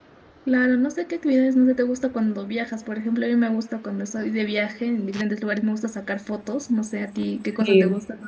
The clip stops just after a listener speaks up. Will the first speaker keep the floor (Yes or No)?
No